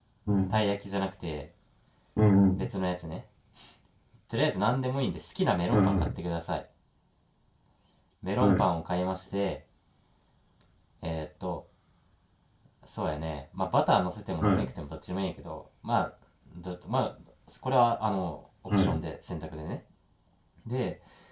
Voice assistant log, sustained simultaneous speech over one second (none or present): none